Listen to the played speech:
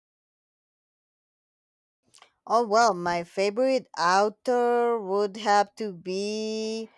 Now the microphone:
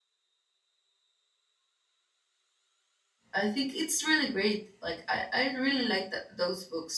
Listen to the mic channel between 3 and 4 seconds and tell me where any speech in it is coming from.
user only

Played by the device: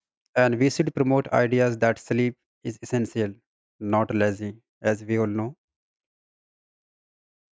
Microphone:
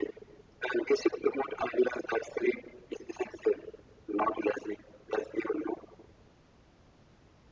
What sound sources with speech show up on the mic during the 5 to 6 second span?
echo only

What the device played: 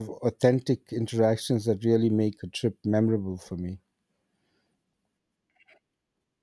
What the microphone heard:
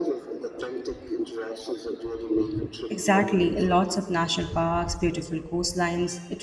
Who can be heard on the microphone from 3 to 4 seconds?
both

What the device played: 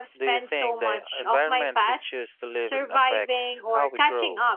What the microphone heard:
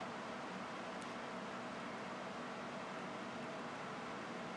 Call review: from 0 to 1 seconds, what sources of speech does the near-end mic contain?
neither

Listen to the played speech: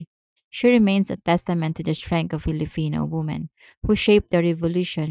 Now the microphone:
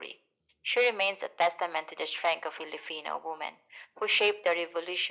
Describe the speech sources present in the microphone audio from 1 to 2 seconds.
echo only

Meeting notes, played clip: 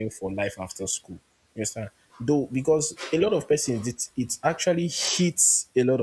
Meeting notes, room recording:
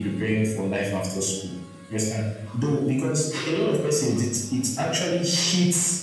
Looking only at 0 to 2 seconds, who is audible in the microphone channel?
echo only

